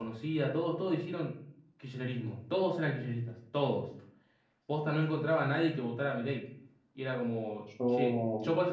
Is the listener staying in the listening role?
Yes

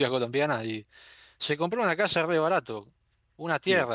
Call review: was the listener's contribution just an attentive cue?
Yes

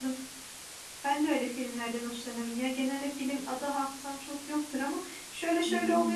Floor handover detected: No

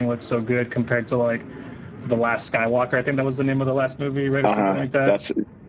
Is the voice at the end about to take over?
Yes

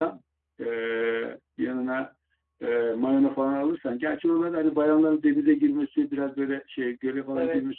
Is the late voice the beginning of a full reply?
No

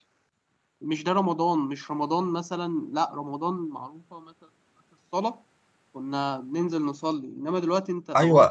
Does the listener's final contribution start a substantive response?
Yes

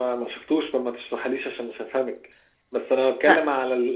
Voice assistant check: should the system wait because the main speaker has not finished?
Yes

